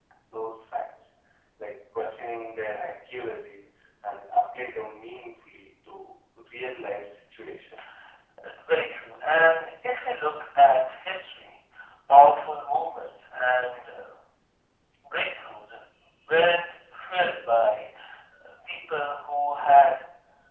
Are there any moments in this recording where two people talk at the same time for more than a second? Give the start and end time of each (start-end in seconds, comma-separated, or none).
none